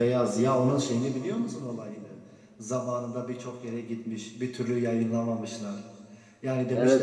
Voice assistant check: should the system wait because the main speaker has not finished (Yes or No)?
Yes